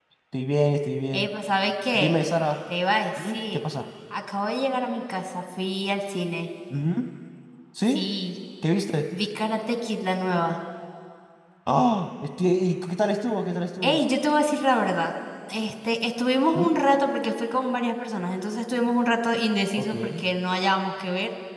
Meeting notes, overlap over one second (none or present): none